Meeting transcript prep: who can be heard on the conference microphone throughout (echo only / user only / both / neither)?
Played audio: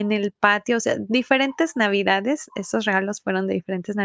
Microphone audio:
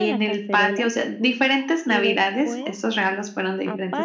both